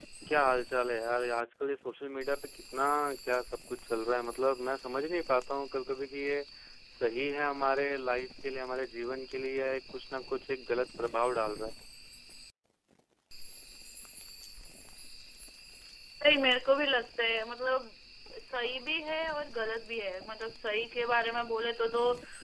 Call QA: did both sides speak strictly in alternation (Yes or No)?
Yes